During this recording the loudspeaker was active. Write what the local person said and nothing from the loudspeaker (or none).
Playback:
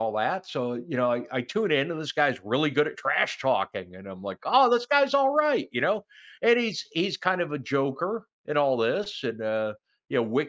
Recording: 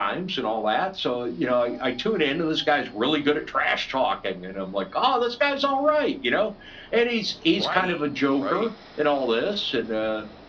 Right, right,